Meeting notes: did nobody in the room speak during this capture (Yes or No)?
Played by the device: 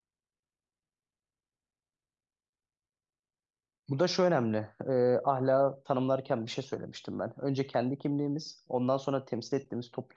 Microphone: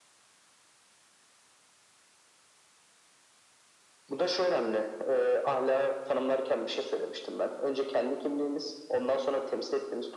Yes